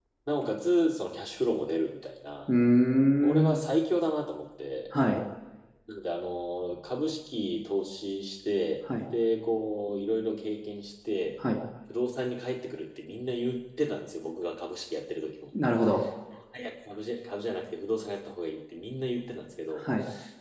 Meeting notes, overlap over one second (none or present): none